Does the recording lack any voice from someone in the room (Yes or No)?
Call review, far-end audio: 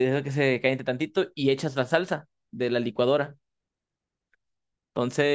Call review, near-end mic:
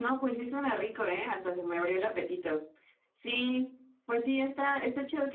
No